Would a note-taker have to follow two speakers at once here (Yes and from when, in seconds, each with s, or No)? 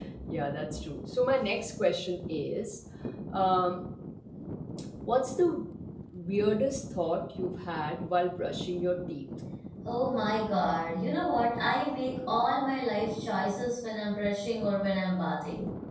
No